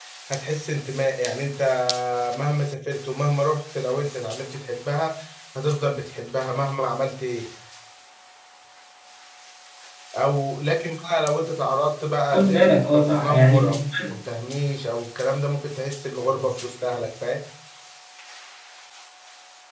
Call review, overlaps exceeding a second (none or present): present